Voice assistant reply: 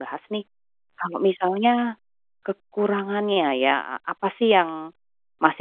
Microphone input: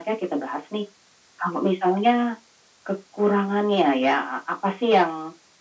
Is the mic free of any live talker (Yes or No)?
Yes